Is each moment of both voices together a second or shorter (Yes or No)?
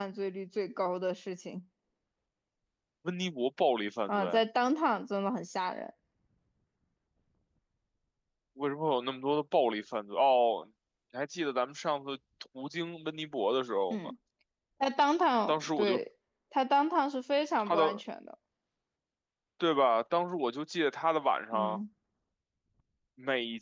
Yes